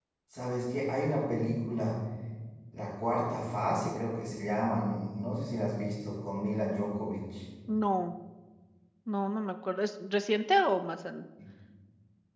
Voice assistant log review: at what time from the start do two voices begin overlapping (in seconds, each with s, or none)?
none